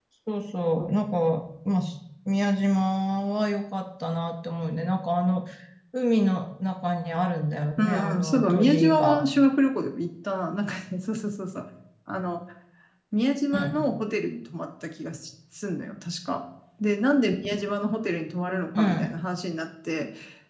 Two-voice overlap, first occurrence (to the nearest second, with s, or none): 8 s